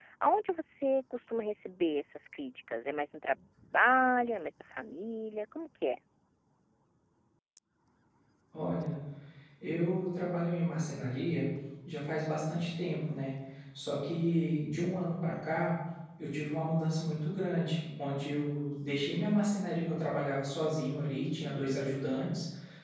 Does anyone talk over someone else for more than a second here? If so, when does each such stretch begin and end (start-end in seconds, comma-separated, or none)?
none